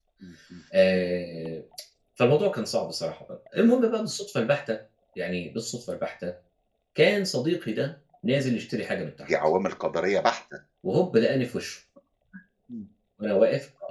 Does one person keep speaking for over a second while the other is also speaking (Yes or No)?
No